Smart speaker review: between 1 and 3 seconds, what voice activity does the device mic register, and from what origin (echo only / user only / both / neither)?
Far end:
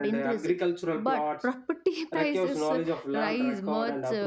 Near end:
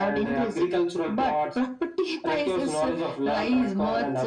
echo only